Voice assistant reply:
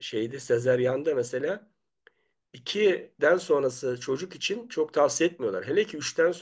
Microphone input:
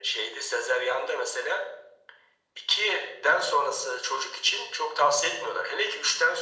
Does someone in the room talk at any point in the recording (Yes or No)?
No